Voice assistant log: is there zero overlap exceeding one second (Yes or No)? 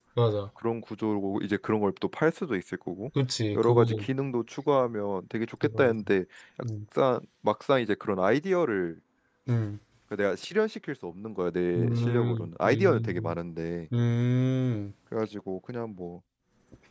No